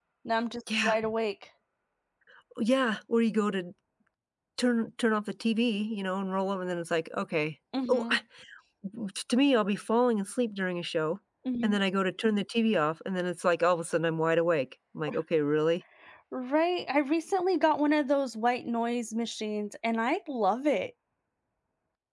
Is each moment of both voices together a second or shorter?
Yes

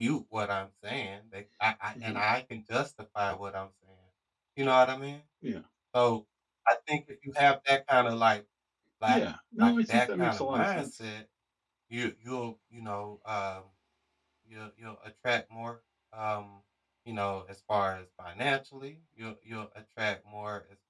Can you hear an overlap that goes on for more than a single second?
Yes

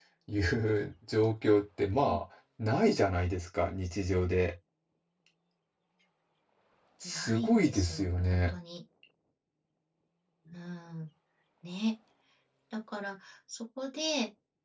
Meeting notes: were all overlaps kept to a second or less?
No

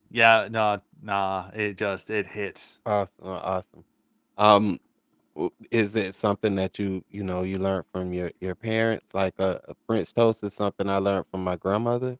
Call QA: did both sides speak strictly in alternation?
Yes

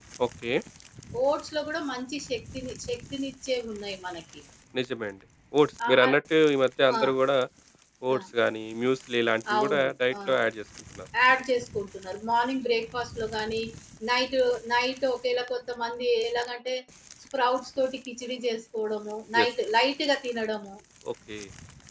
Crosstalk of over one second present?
No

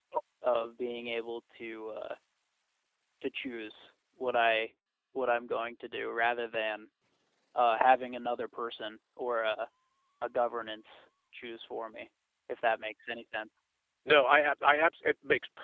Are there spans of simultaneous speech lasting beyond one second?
No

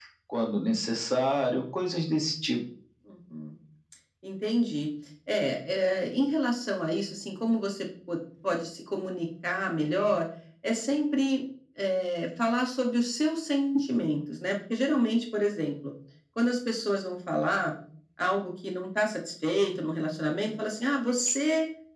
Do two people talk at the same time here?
No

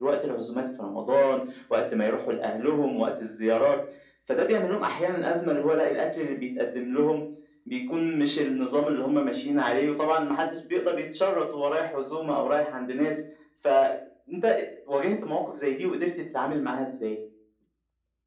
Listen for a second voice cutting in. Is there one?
No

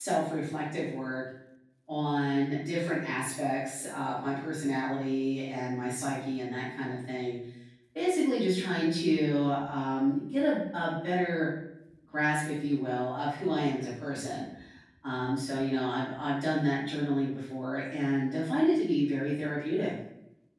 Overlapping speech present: No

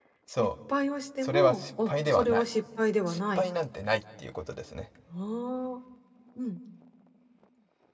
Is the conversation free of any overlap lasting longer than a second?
No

